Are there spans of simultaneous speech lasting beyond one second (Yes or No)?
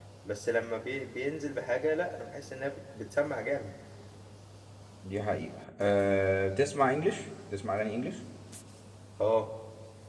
No